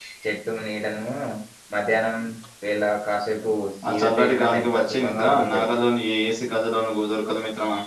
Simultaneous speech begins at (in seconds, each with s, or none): 3.8 s